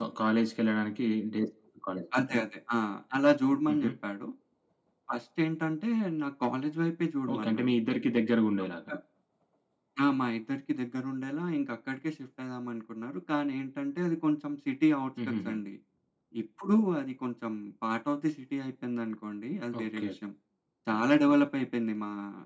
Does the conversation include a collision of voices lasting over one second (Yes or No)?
No